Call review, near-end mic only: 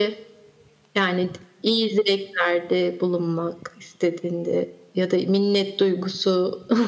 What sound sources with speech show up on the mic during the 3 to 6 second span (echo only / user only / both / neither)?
echo only